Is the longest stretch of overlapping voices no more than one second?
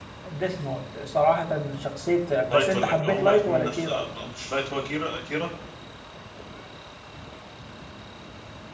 No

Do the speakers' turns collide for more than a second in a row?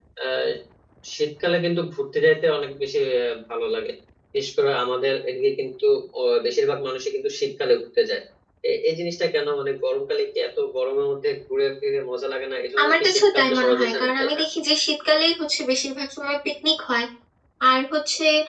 Yes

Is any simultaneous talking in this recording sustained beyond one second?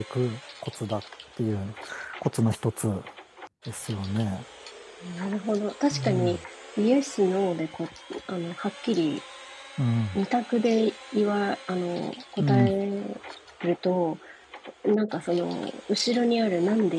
No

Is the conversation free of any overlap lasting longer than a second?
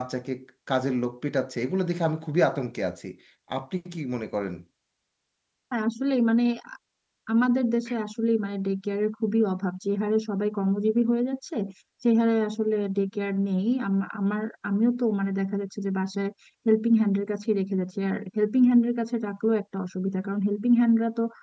Yes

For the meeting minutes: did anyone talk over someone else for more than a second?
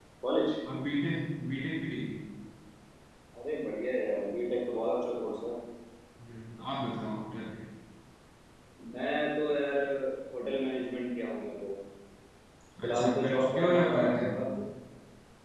Yes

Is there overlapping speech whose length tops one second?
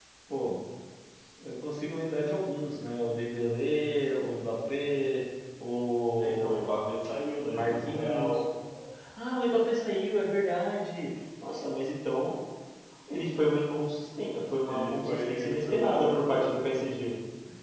Yes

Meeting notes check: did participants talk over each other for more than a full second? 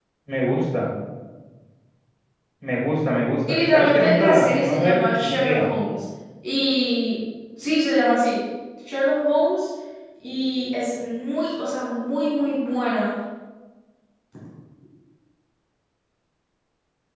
Yes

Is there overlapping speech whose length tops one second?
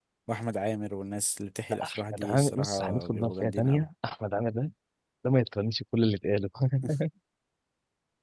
Yes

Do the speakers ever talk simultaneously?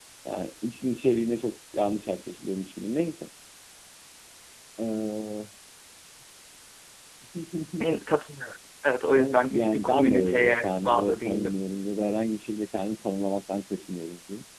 Yes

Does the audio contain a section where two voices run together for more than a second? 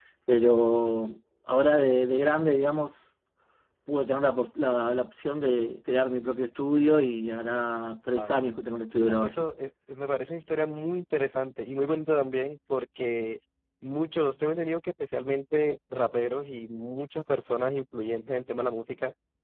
No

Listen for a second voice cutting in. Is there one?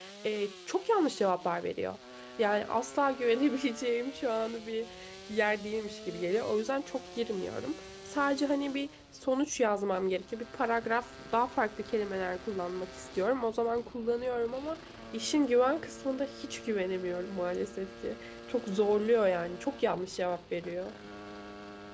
No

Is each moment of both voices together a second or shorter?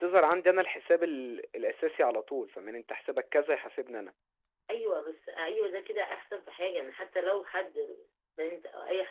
Yes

